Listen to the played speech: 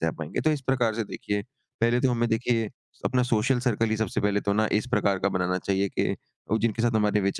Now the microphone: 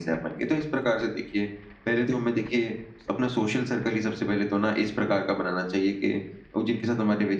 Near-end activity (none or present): none